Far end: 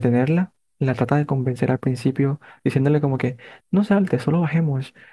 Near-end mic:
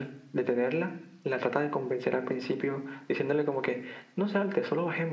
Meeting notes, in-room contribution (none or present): none